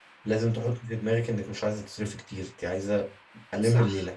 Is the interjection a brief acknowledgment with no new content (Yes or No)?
No